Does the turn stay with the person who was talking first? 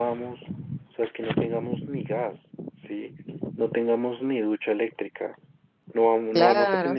No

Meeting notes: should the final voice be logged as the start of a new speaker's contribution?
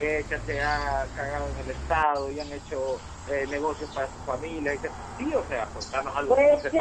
Yes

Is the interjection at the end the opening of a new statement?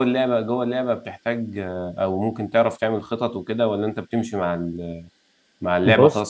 No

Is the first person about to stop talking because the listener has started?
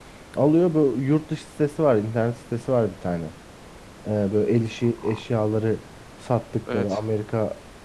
No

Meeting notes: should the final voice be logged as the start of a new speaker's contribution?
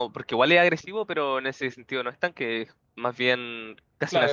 Yes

